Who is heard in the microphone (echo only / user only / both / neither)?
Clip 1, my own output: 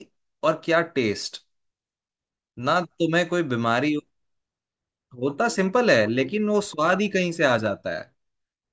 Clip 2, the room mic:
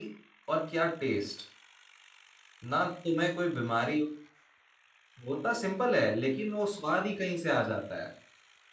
echo only